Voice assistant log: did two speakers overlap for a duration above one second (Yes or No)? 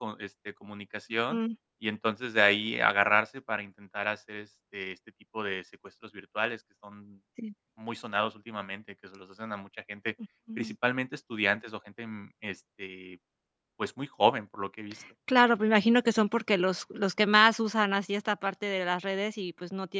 No